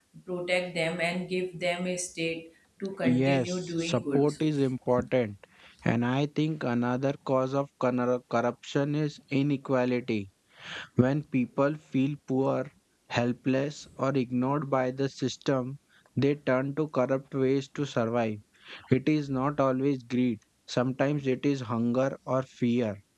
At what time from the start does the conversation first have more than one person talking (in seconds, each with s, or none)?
3.0 s